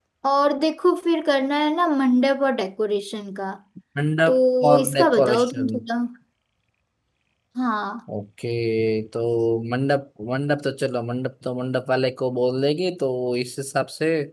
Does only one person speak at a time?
No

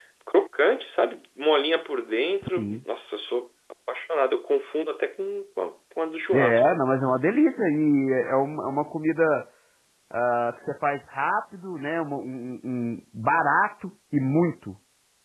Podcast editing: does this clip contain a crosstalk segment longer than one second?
No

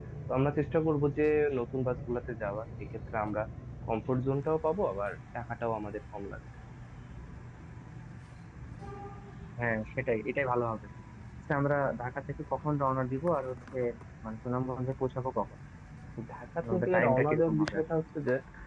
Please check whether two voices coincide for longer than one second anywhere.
Yes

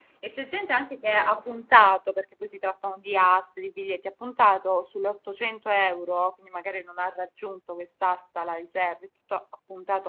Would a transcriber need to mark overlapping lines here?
No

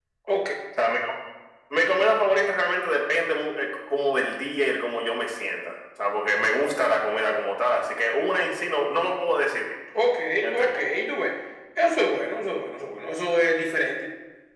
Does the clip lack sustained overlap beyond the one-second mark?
Yes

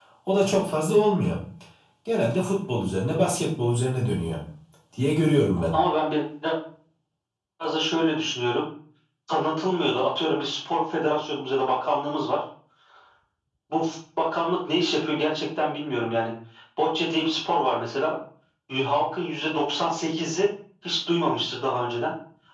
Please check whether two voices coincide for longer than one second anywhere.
No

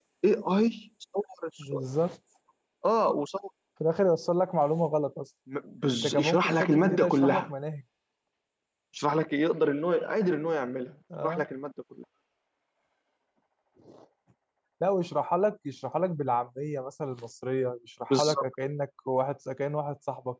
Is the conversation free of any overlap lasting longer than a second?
No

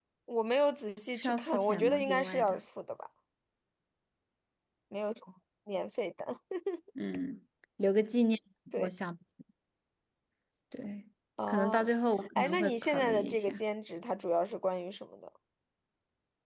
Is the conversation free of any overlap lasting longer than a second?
No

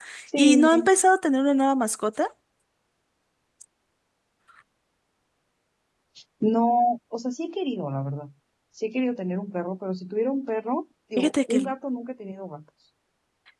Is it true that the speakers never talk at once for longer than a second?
Yes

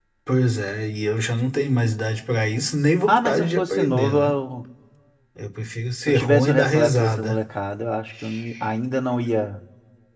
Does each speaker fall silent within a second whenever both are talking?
No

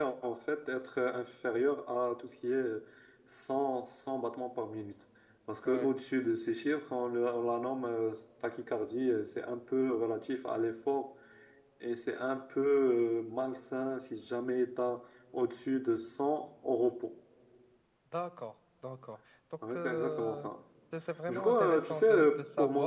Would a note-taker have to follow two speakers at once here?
Yes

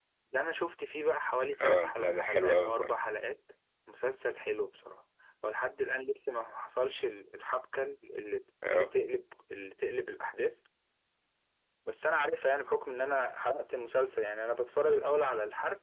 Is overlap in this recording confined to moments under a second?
No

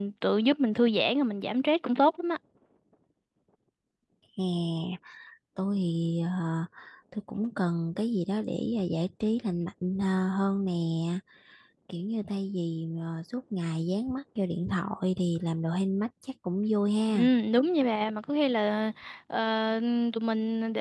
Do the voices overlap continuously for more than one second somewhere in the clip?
No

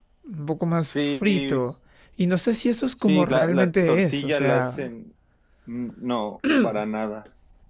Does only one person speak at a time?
No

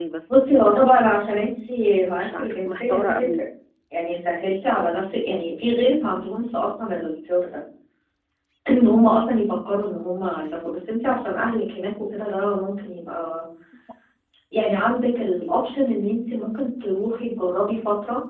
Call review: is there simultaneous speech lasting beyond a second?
Yes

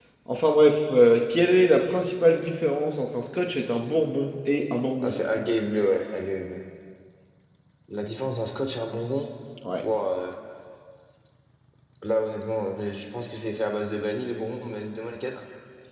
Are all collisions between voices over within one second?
Yes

